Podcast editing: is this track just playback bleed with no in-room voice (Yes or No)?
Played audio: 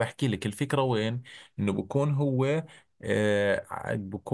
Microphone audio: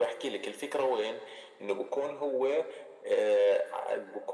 Yes